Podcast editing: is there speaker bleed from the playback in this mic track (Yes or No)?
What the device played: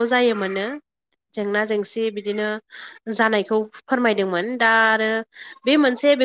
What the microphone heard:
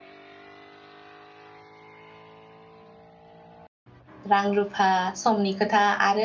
No